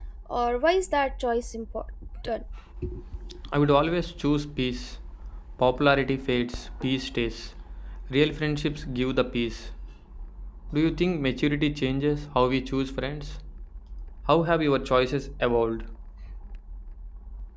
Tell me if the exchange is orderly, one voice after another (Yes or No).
Yes